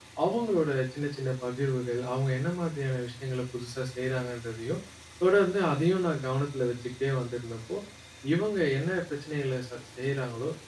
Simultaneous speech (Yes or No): No